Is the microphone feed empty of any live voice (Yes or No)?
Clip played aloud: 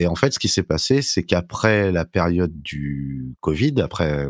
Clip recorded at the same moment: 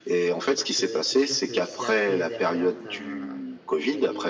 No